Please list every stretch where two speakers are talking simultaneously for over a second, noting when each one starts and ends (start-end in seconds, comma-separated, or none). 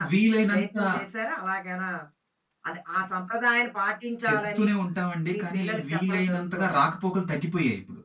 5.3-6.8